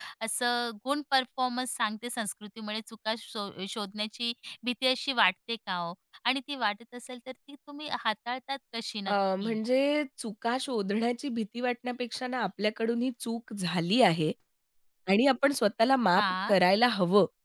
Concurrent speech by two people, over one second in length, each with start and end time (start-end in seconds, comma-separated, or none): none